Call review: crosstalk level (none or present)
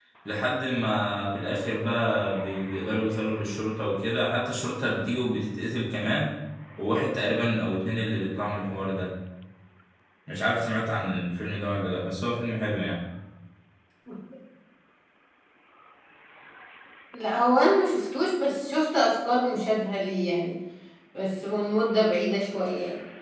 none